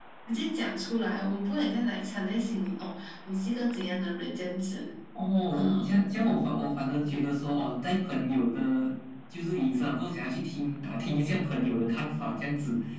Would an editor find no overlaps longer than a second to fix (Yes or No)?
Yes